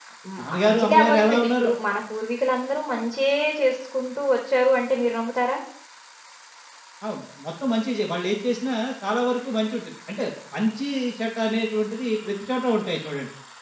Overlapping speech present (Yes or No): Yes